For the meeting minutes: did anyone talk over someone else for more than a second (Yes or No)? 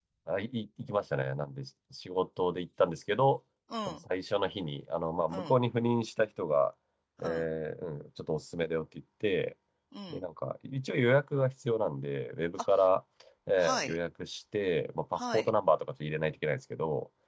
No